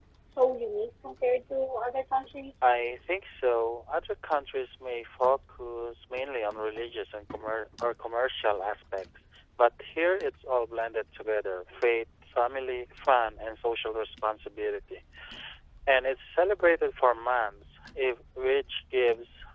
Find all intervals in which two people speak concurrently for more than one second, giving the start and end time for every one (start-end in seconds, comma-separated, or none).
none